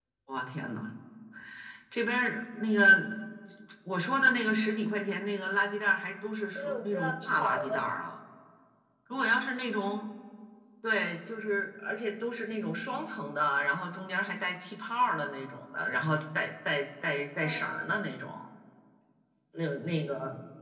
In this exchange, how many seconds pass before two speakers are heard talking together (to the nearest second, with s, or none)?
7 s